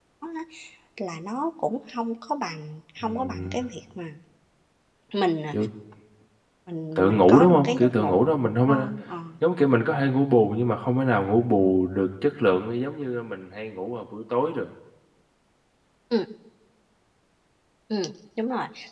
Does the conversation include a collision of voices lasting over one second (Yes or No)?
Yes